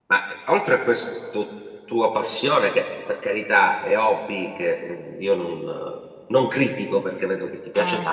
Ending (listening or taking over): listening